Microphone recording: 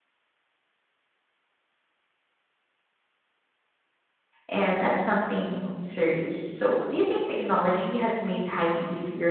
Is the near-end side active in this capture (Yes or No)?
Yes